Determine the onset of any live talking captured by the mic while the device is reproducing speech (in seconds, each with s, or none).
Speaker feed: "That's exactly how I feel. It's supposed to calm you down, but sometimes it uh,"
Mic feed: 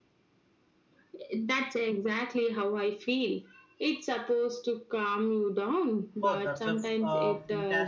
6.2 s